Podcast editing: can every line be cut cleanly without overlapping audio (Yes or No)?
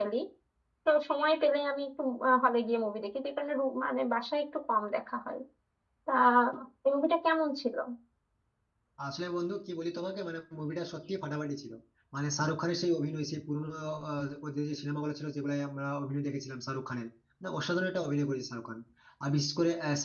Yes